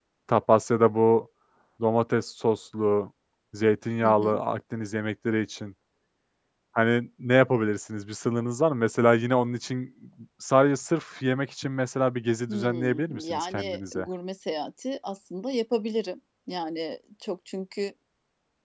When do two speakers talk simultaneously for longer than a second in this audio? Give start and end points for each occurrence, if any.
12.5-14.1

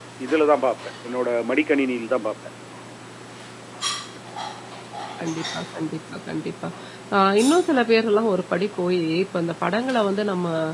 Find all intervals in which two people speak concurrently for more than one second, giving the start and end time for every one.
none

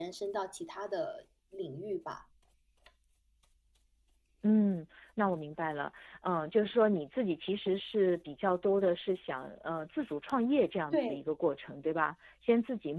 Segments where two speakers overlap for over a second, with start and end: none

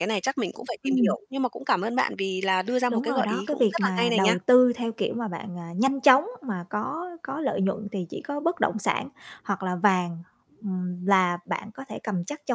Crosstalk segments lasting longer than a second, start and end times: 2.9-4.4

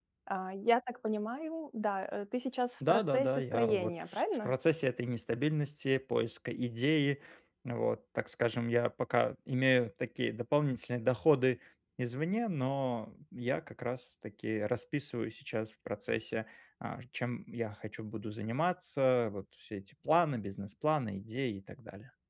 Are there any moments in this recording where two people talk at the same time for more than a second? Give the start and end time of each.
2.9-4.5

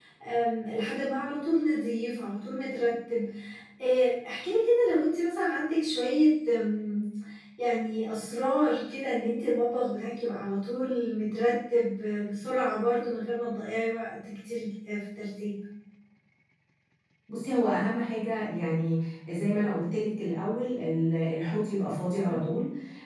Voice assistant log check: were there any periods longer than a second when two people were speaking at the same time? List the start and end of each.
none

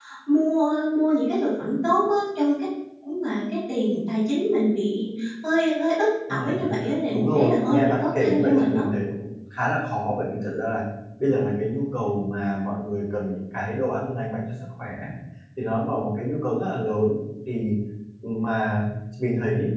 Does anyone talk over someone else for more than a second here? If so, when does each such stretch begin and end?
7.1-8.8

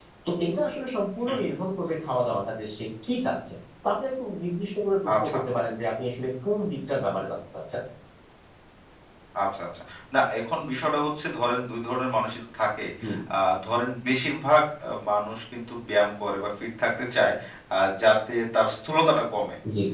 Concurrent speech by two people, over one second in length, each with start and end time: none

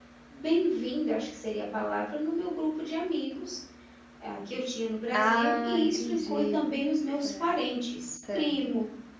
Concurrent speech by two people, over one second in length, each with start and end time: 5.1-6.7

